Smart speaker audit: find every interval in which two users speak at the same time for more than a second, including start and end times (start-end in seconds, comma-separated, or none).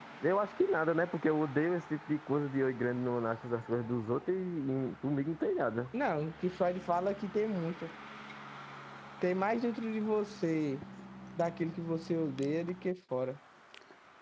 none